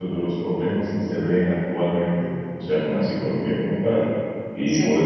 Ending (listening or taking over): listening